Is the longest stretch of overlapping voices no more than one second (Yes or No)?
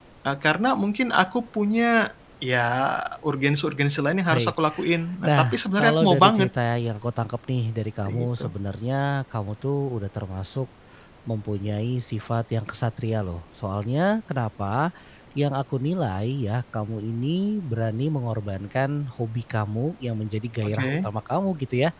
No